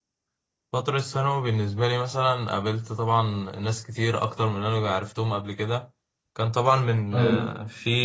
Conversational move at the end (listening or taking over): listening